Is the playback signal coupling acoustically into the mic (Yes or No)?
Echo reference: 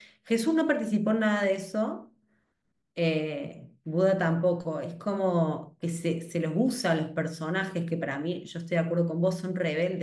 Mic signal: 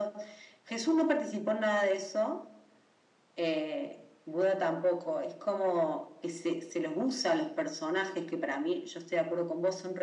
Yes